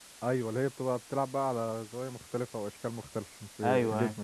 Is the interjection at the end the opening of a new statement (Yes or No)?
Yes